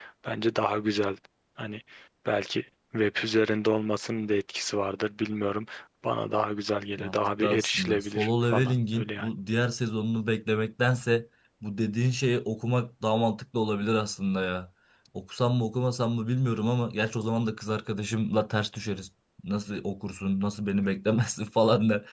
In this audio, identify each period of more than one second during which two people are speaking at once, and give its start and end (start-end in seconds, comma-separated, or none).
7.0-9.3